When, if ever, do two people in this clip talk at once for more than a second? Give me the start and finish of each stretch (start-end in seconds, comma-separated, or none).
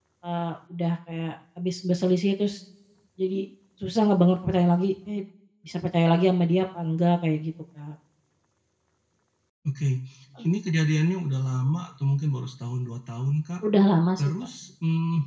none